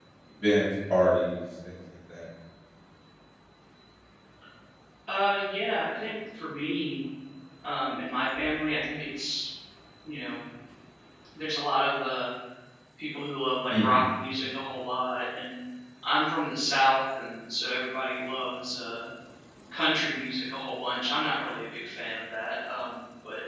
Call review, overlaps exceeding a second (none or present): none